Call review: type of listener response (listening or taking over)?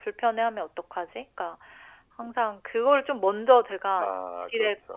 listening